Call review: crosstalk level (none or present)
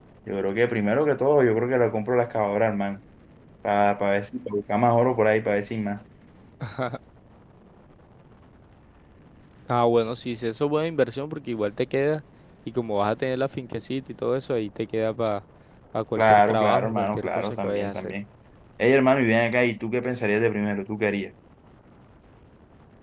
present